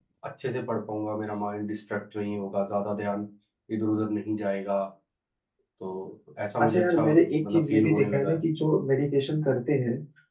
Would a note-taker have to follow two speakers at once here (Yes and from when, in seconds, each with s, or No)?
Yes, from 6.6 s